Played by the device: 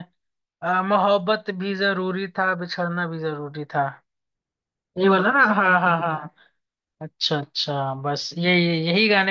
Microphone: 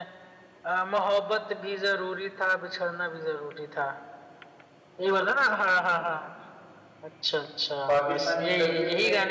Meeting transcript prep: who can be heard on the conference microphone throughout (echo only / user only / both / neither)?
both